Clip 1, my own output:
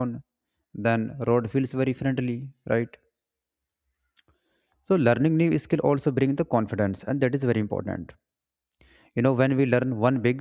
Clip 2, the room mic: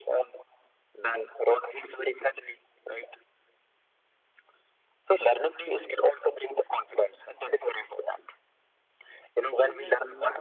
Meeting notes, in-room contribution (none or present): present